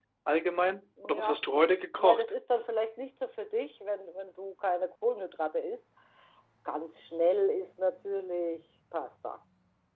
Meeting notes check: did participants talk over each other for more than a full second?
No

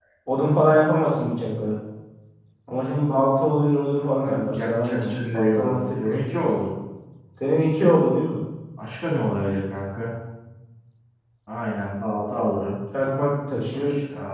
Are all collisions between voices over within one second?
No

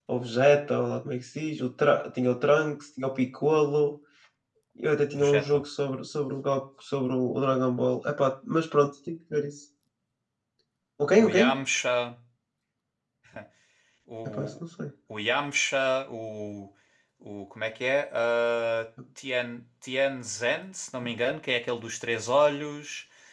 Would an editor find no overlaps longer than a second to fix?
Yes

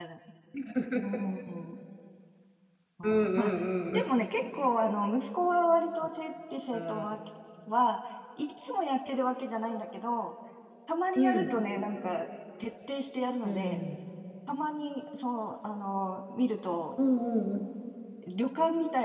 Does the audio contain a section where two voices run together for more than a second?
No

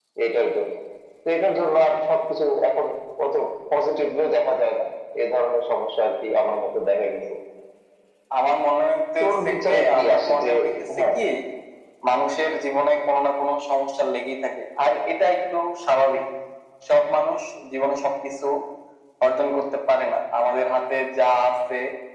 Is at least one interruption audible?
Yes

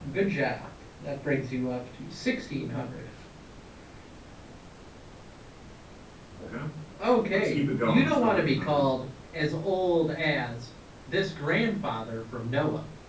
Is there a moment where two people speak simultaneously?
Yes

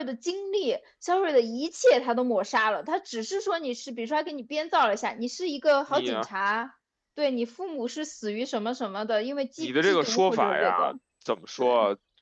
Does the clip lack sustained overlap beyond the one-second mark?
No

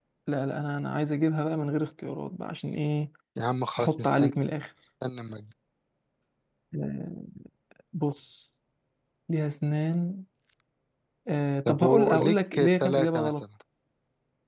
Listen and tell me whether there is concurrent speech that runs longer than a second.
Yes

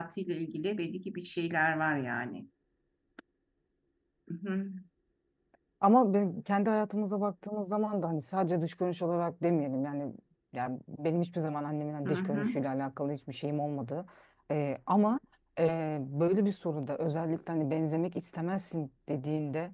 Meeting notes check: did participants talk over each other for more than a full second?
No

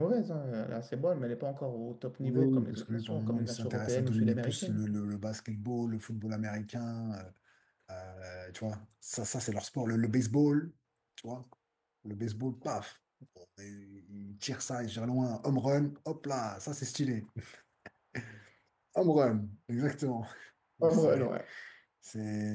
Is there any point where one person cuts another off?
Yes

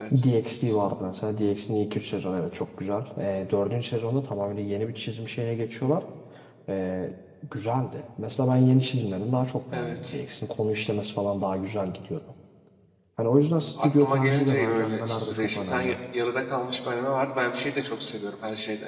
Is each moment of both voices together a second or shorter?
No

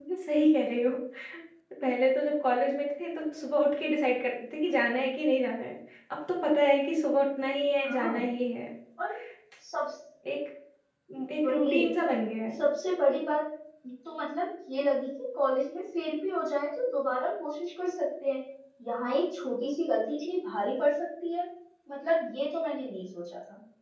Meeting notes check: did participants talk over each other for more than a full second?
No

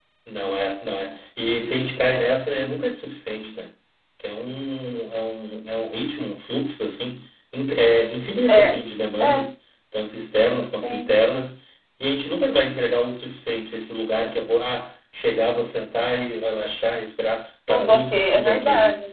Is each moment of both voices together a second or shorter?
No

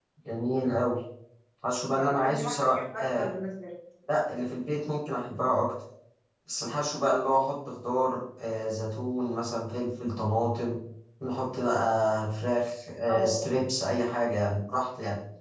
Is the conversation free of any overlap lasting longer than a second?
No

